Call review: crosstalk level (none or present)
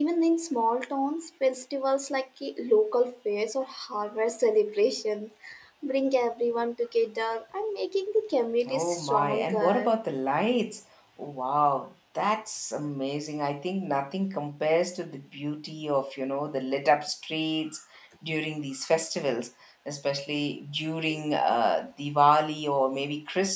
present